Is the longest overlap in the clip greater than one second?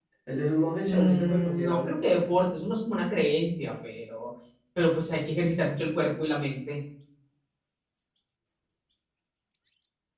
Yes, from 0.8 s

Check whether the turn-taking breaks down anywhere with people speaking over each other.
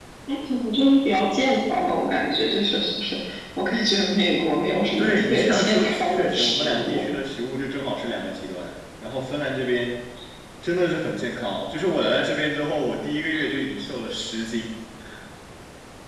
Yes, from 5.0 s

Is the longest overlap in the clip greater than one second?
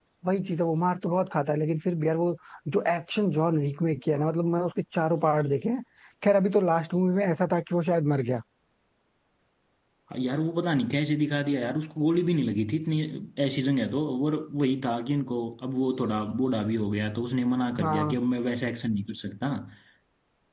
No

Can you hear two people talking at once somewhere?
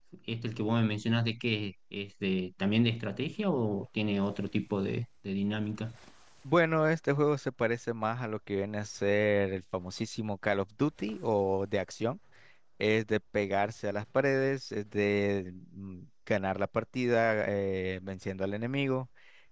No

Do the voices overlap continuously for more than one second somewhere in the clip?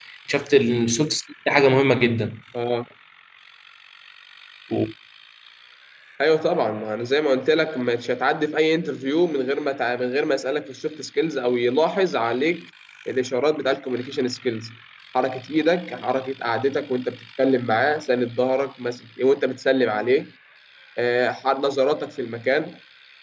No

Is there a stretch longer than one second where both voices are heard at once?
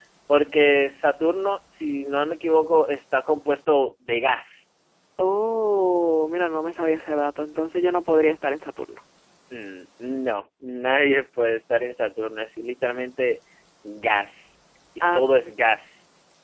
No

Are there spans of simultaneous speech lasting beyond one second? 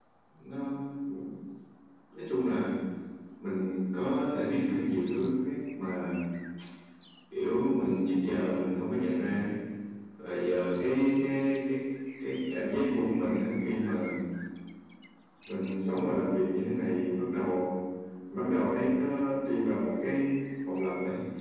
No

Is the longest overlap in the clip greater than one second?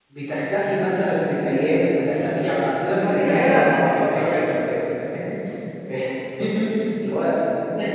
Yes, from 3.0 s

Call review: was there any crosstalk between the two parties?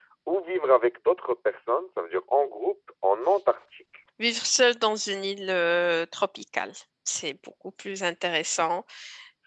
No

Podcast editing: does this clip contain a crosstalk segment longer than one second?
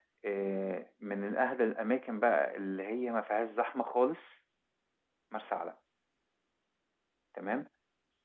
No

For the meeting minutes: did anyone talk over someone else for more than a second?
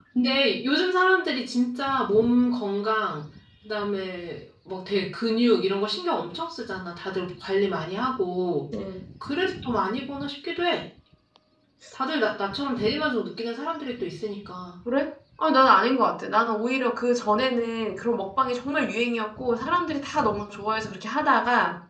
No

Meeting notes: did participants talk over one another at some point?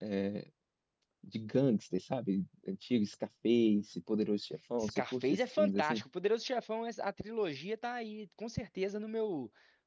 Yes, from 4.8 s

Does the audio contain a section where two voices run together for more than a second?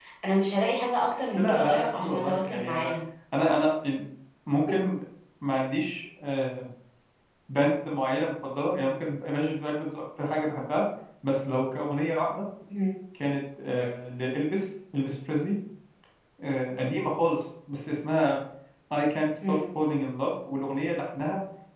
Yes, from 1.4 s

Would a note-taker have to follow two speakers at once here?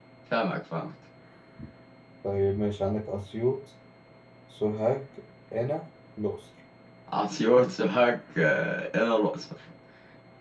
No

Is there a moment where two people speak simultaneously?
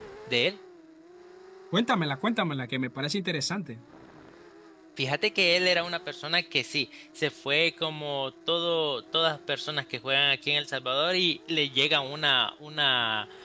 No

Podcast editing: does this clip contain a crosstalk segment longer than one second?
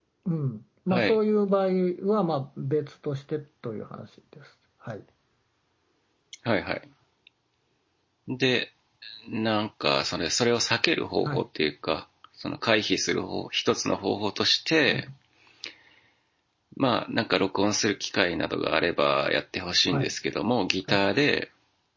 No

